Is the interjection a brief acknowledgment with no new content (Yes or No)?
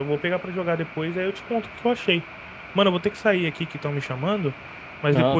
Yes